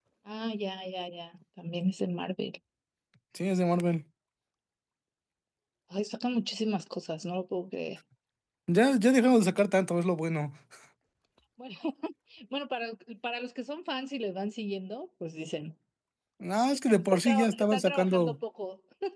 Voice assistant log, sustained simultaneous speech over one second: present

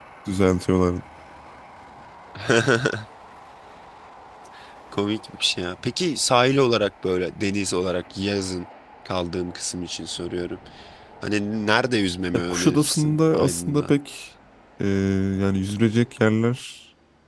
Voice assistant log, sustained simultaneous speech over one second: present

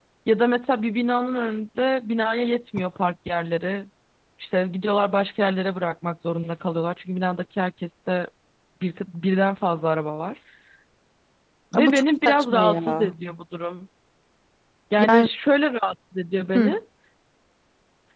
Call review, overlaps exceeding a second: present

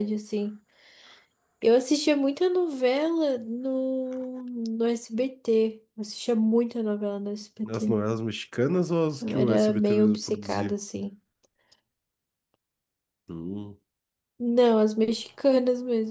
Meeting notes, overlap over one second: present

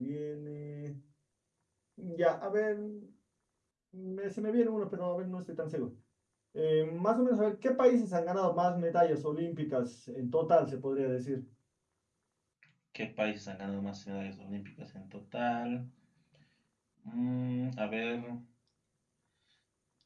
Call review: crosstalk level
none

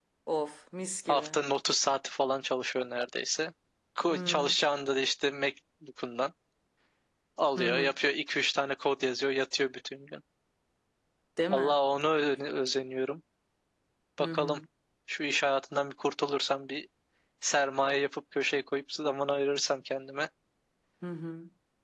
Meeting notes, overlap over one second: none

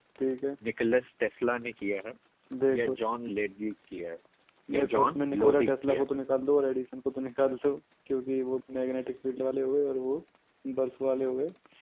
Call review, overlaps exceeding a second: present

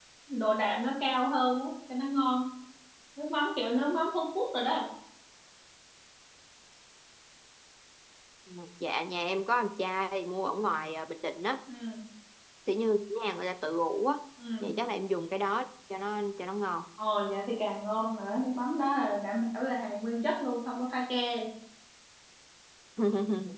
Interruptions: none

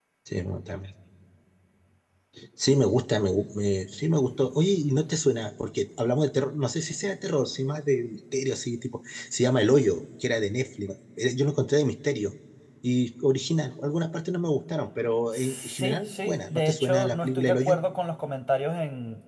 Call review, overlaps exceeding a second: present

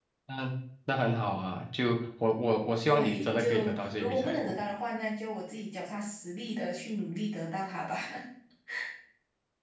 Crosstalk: present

